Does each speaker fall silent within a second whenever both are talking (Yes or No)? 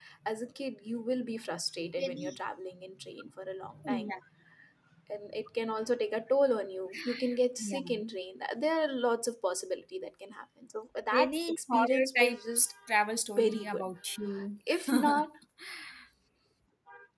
No